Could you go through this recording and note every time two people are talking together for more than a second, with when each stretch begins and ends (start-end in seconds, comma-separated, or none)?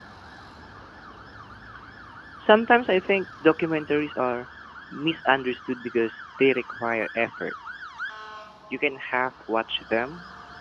none